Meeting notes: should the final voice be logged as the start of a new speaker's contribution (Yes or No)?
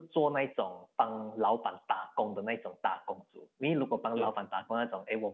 No